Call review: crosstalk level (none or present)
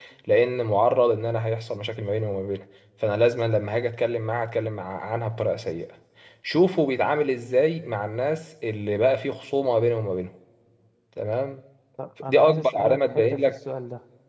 present